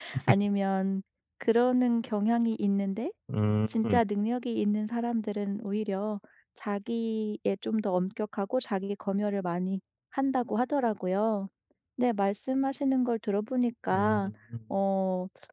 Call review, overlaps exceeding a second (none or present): none